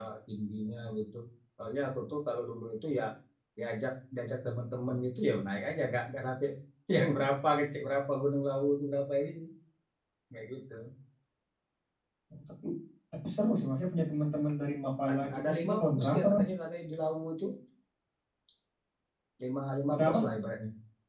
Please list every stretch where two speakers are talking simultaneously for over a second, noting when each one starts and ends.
15.1-16.5

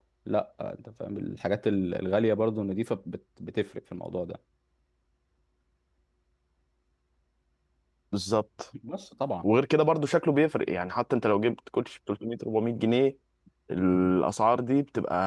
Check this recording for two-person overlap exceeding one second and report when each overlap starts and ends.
none

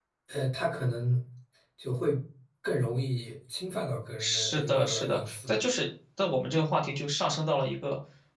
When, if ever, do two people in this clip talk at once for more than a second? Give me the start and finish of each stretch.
4.2-5.5

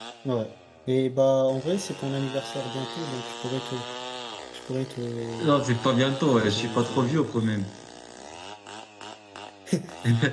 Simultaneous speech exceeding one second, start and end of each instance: 6.3-7.5

